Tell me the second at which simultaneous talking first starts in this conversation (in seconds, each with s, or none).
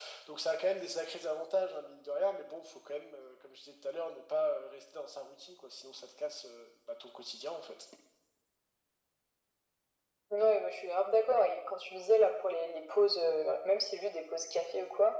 none